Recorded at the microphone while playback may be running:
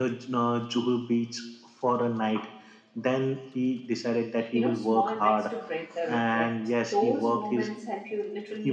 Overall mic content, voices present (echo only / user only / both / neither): both